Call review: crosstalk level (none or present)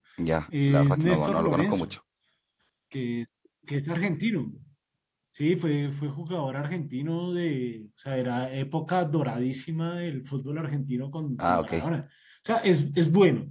present